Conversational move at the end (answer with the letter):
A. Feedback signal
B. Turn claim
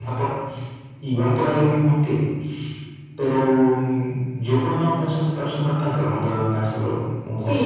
B